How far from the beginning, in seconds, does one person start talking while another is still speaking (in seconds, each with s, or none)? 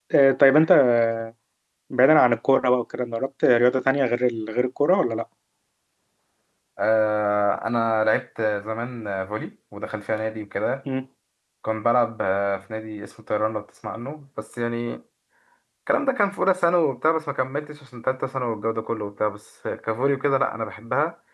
none